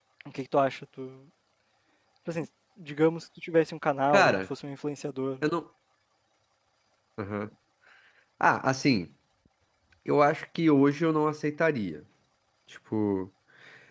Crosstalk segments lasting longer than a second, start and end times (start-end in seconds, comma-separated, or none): none